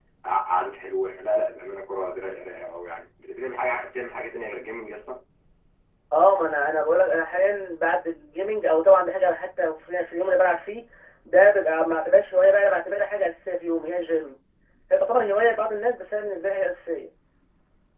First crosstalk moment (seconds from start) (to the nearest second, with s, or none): none